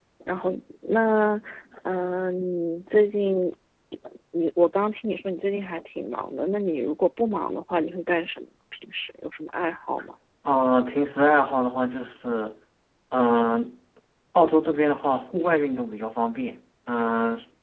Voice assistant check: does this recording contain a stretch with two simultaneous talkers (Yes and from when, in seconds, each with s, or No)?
No